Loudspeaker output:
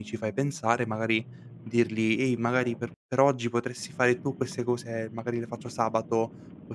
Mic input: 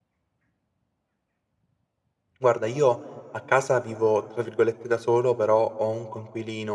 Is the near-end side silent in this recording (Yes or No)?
No